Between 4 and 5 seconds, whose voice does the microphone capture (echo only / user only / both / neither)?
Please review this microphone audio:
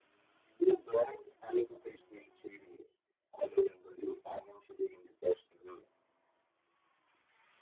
echo only